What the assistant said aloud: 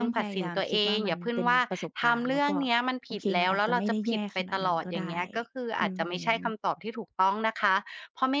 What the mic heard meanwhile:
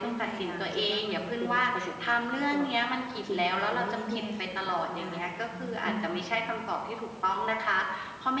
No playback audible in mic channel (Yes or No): No